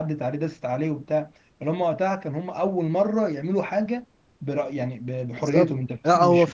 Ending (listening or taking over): taking over